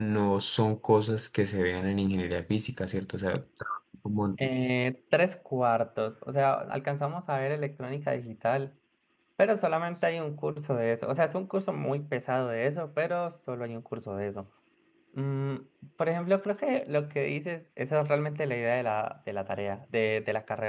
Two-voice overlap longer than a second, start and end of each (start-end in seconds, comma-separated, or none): none